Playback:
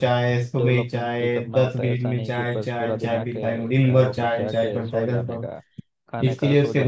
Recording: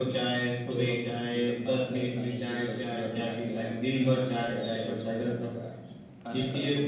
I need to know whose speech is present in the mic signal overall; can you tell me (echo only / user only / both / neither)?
echo only